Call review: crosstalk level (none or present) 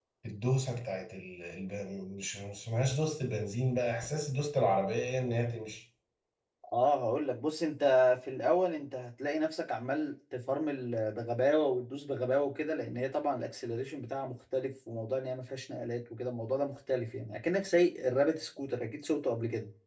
none